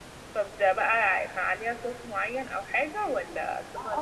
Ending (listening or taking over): taking over